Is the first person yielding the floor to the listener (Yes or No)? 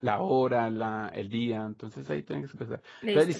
No